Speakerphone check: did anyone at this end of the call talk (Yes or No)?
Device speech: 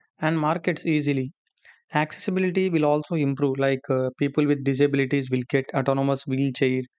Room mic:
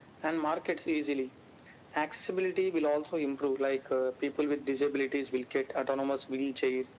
No